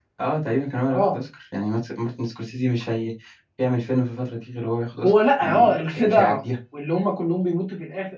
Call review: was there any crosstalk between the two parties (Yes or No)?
Yes